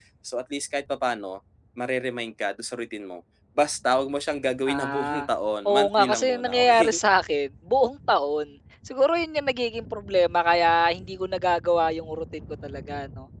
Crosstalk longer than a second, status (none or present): present